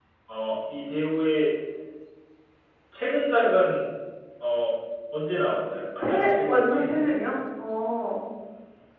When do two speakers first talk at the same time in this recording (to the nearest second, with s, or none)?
6 s